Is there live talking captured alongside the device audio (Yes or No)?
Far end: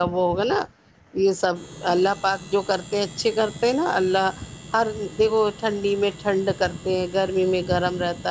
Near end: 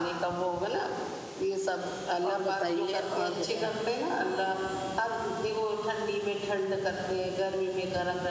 Yes